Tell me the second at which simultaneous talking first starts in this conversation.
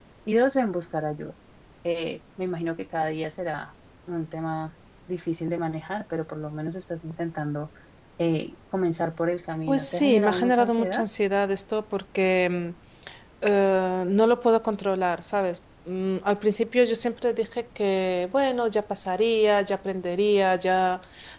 10 s

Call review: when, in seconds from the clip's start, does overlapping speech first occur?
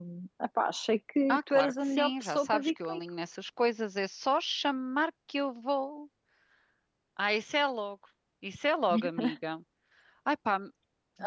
1 s

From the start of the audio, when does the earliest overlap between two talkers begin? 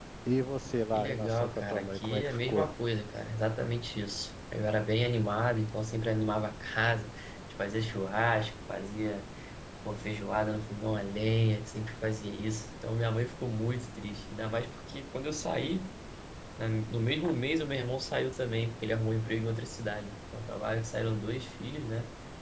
1 s

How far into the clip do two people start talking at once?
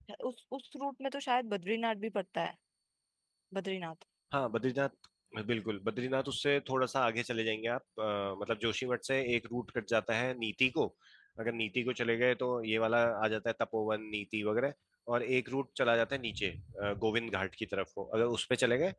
none

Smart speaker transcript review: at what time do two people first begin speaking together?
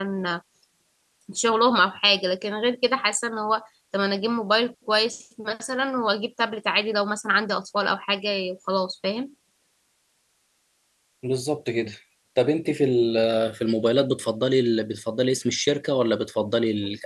none

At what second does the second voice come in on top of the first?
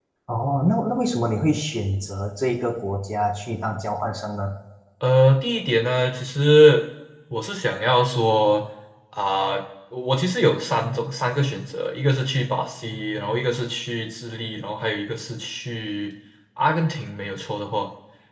none

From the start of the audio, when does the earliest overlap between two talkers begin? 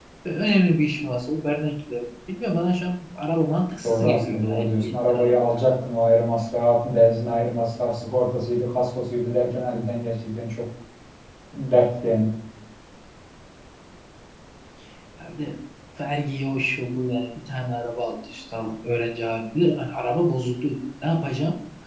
4 s

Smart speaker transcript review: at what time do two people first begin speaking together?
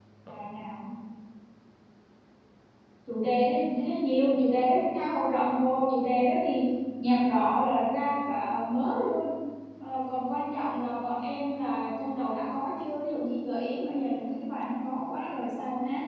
none

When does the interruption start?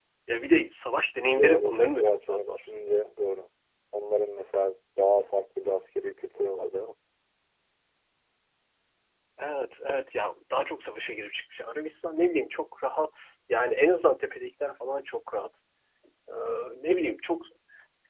1 s

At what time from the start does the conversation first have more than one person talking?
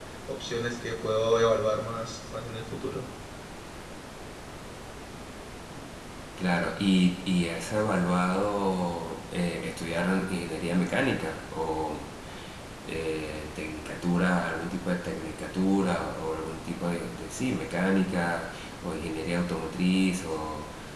none

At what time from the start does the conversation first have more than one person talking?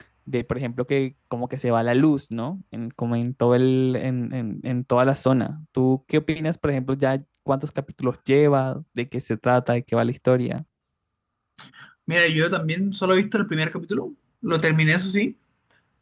none

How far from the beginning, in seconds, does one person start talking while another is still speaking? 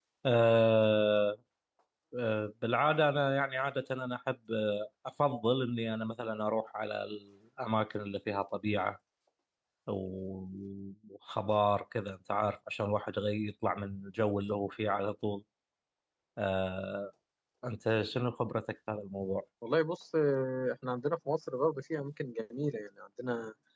none

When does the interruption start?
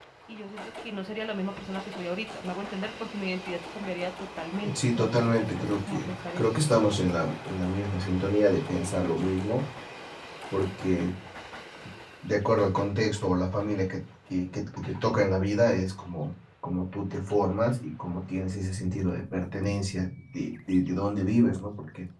5 s

